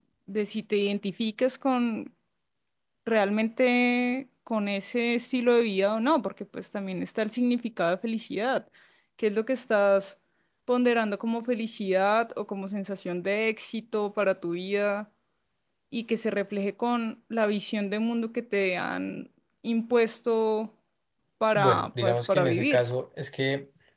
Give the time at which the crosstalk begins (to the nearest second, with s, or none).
22 s